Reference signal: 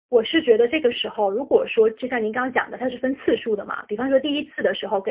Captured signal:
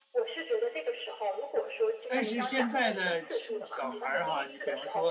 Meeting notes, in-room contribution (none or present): present